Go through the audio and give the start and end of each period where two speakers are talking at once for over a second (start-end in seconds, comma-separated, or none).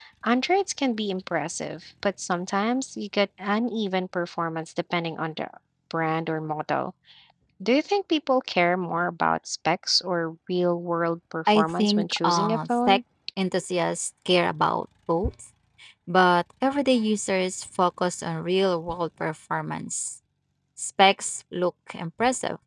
11.5-13.0